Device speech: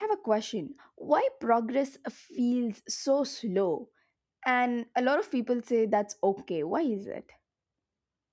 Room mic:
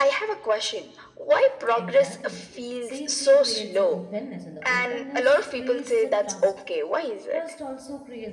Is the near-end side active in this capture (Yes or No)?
Yes